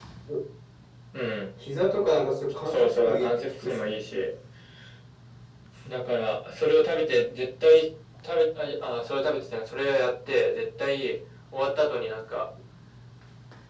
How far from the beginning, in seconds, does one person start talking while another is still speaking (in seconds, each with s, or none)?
2.6 s